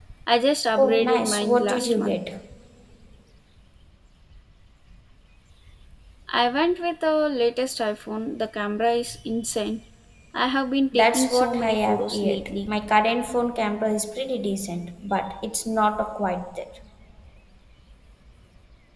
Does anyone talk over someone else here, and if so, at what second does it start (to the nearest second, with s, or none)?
1 s